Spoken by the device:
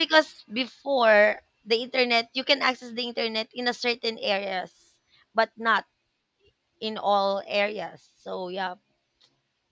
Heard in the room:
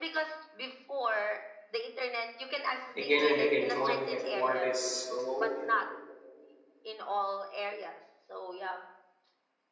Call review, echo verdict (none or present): present